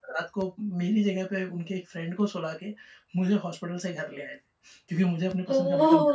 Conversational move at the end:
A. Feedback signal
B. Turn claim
B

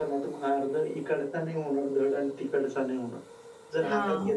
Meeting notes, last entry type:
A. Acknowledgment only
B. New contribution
A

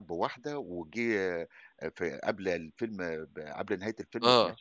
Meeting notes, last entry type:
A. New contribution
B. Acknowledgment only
B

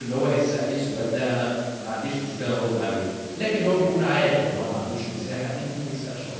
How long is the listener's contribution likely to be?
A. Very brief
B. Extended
B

